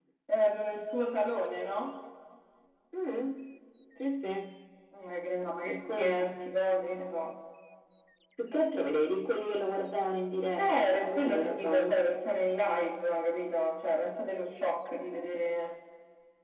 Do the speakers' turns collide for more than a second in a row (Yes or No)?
Yes